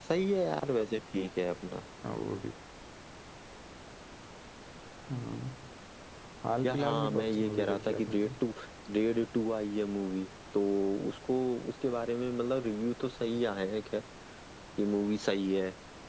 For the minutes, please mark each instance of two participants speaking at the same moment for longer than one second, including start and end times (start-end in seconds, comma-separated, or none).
6.6-8.3